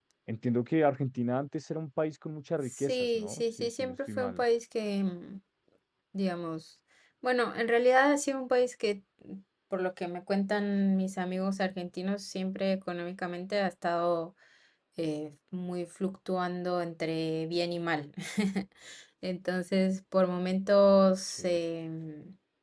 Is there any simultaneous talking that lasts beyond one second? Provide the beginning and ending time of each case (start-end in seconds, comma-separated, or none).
2.6-4.4